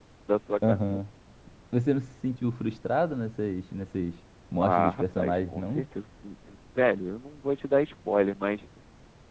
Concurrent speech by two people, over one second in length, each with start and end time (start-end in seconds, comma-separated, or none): 4.6-5.8